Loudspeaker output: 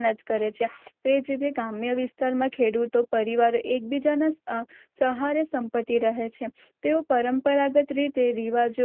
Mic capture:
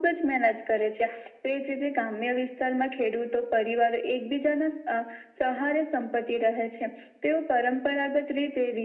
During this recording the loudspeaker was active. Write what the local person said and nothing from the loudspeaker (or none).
none